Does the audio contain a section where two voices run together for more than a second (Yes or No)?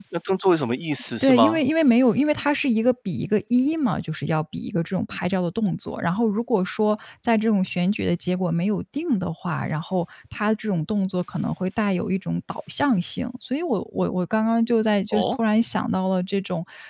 No